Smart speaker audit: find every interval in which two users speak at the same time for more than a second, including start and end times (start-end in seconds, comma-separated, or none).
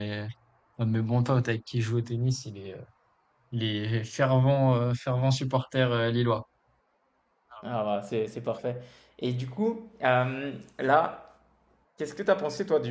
none